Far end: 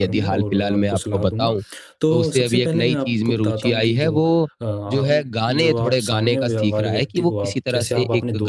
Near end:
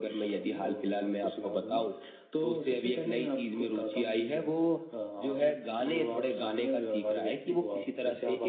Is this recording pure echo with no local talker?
Yes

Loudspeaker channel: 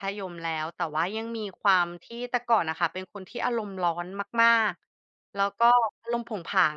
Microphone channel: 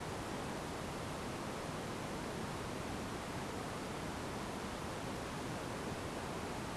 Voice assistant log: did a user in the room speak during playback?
No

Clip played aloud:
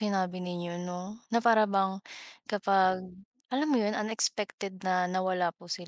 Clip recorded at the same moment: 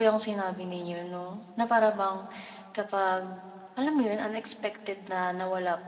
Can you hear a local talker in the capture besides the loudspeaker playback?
No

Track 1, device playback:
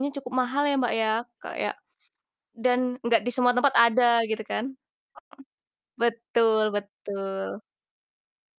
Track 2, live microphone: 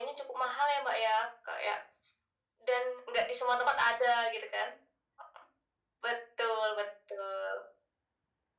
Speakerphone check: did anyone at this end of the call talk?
No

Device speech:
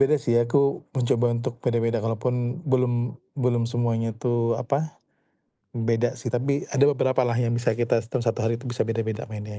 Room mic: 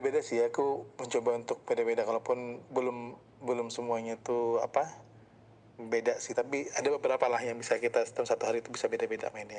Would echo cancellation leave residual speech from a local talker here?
No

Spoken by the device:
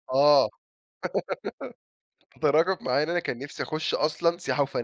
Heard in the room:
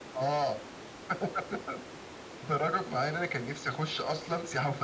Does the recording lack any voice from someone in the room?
Yes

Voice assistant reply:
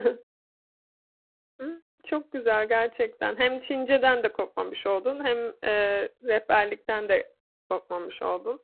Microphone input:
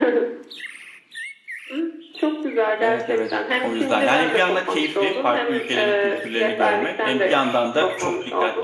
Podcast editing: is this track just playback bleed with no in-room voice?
No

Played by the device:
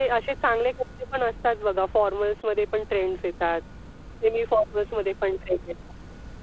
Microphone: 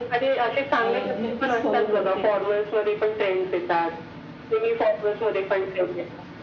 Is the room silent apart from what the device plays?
No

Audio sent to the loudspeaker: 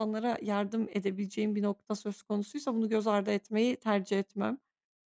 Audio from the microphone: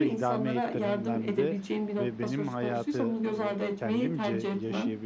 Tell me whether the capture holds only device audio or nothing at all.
No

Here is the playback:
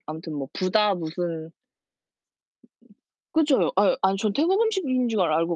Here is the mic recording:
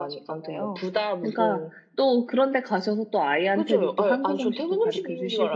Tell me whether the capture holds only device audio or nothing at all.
No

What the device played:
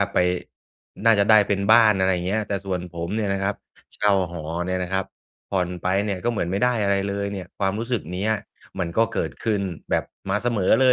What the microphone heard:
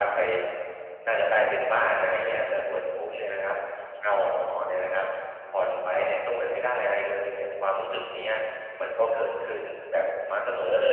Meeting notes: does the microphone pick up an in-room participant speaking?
No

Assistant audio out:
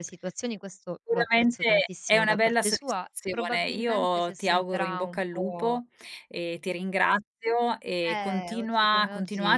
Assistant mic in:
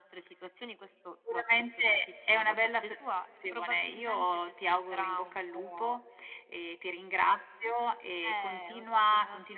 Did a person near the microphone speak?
No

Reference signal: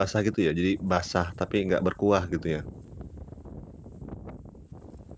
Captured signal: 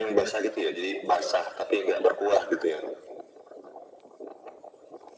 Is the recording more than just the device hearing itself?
No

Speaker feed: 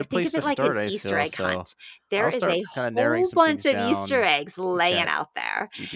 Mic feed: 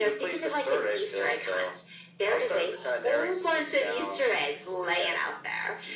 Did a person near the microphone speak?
No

